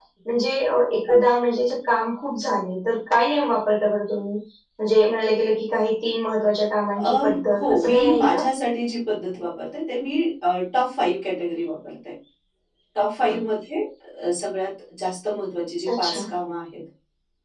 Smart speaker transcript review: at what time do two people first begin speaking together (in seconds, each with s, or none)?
7.0 s